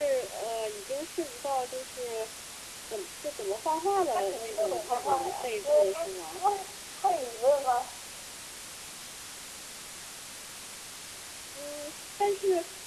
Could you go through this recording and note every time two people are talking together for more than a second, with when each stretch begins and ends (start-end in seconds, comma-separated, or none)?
4.1-6.4